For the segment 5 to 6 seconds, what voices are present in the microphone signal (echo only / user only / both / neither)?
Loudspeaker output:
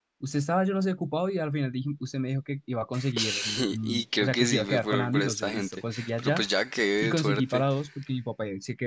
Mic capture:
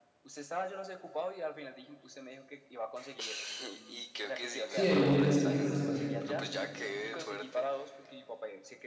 both